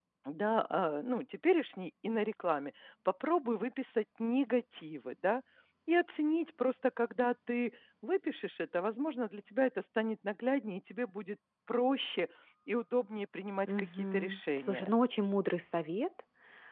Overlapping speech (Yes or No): Yes